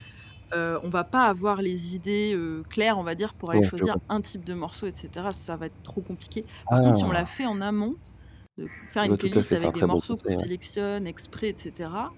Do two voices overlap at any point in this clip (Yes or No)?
Yes